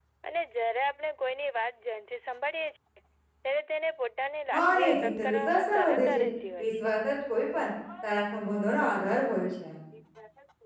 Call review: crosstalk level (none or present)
present